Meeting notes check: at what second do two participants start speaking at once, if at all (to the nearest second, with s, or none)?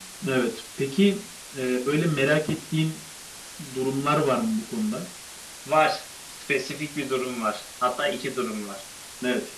none